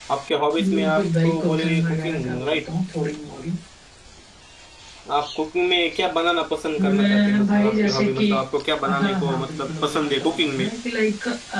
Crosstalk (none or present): present